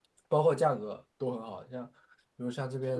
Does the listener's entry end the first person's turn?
No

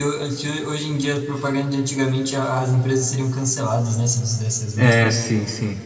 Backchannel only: No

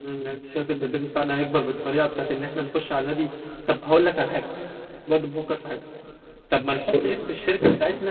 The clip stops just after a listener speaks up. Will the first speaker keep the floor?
Yes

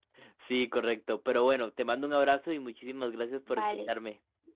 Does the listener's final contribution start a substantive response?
Yes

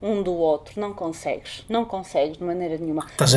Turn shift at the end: Yes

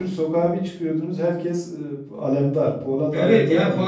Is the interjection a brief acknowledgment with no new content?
No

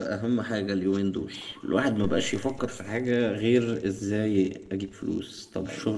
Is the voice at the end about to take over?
No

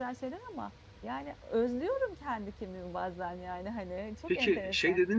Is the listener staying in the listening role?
No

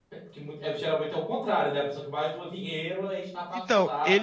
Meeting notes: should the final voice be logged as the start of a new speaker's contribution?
Yes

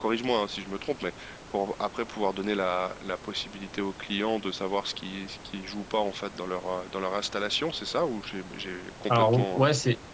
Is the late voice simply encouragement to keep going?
No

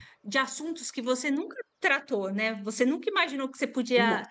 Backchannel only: Yes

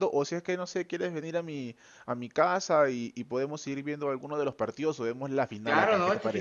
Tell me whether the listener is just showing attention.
No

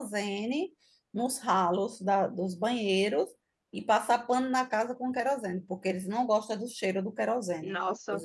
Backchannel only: Yes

